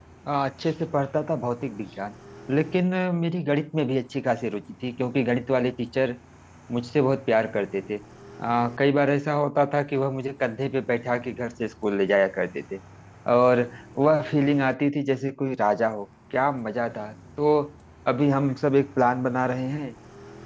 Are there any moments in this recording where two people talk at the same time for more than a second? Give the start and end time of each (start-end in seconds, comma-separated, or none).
none